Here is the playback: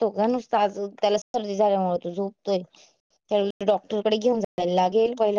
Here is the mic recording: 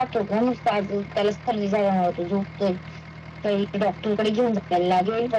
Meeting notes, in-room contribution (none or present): none